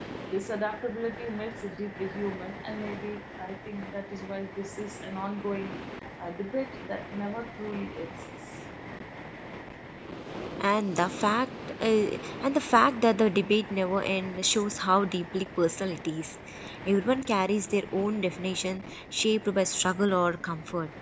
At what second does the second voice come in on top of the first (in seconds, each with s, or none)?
none